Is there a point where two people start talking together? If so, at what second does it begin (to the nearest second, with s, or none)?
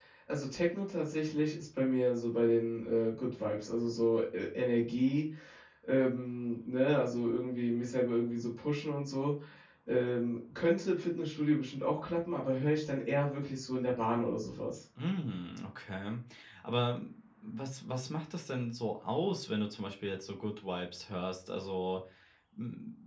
none